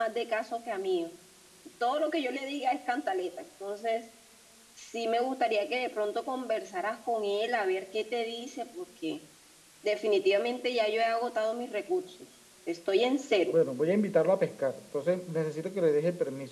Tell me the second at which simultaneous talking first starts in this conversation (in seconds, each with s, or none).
none